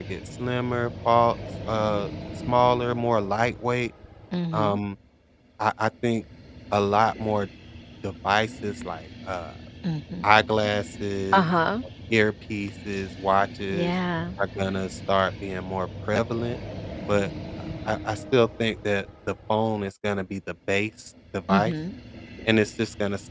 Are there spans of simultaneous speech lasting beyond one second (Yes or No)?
No